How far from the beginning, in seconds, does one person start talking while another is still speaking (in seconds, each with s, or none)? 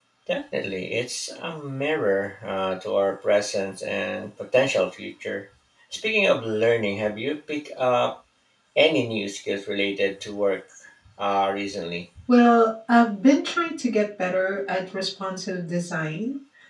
none